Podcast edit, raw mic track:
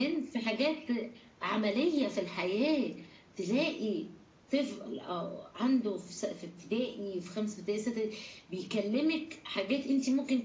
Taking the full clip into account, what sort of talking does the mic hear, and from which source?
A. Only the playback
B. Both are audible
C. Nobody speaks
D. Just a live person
A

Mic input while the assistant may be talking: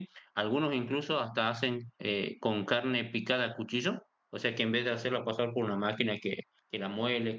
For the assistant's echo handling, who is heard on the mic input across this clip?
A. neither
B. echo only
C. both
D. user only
D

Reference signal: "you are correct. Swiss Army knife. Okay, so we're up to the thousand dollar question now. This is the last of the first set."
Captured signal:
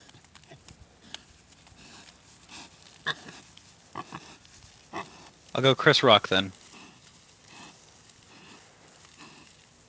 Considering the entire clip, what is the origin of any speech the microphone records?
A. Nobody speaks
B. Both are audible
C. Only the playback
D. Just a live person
D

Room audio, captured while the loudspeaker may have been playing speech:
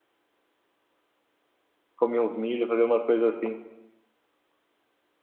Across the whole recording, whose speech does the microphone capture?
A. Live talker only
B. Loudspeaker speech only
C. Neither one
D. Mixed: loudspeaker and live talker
A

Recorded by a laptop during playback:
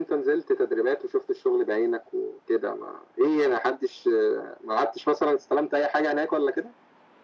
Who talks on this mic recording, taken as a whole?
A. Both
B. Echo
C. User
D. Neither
B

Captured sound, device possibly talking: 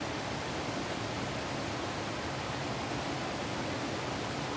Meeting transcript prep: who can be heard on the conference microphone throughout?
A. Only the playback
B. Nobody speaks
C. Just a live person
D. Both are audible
B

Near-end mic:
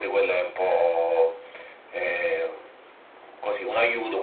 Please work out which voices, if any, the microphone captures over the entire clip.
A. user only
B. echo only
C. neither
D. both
B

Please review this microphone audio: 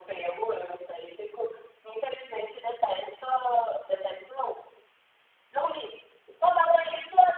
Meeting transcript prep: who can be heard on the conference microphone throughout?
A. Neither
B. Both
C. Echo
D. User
C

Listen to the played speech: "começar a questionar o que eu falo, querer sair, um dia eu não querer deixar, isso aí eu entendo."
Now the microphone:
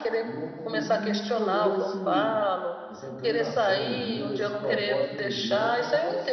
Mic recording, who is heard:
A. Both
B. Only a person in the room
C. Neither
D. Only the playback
A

